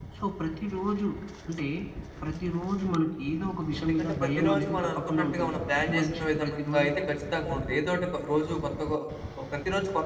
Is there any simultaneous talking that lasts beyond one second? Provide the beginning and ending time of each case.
3.8-6.9

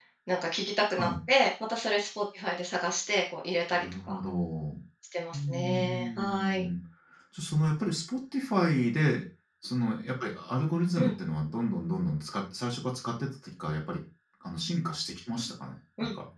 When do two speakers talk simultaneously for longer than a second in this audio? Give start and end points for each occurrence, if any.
5.3-6.7

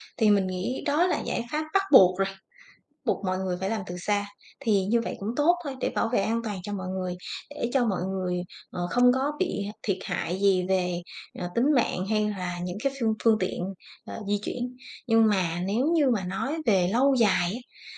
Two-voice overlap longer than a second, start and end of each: none

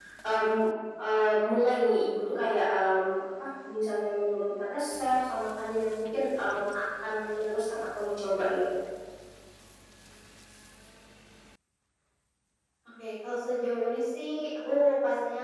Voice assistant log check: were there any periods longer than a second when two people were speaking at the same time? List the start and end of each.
none

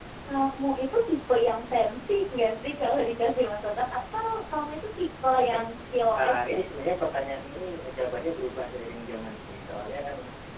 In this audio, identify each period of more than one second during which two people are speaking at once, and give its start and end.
none

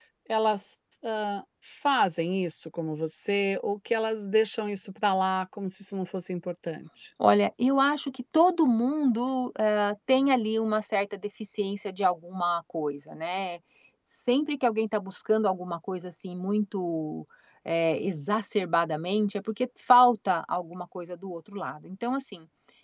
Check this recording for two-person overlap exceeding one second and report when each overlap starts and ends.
none

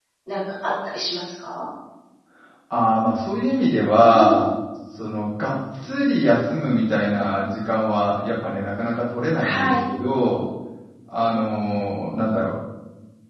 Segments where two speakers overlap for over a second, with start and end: none

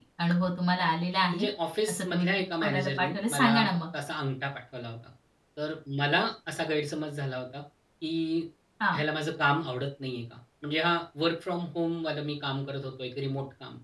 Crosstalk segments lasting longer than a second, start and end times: 1.9-3.8

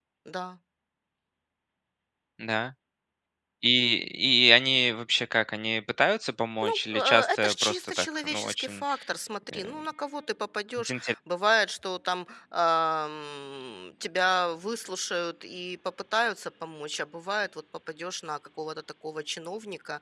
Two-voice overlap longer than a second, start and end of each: 6.6-8.8

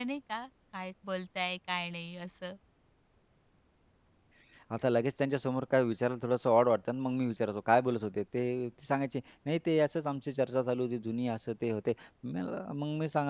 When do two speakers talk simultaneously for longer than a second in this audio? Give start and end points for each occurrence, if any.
none

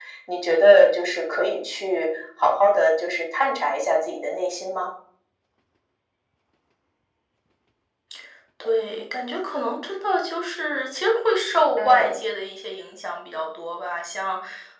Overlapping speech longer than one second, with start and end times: none

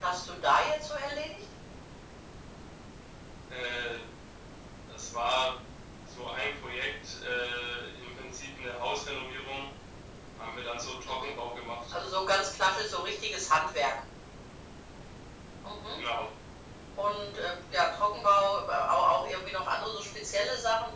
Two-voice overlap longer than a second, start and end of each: none

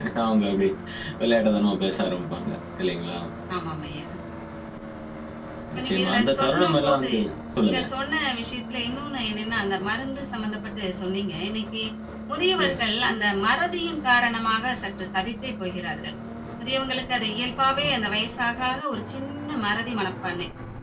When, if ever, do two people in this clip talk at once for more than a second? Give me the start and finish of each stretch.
5.8-7.1

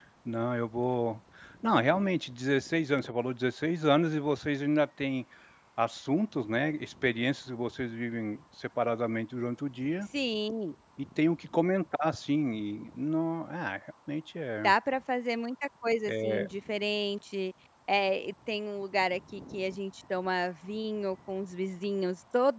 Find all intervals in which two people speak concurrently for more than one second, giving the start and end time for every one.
none

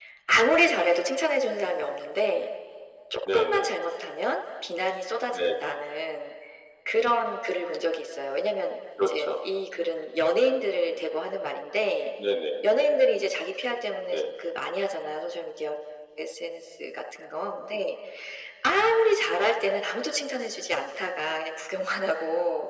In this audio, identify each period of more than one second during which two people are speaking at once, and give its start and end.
none

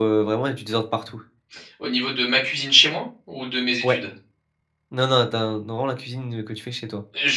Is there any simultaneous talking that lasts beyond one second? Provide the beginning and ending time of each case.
none

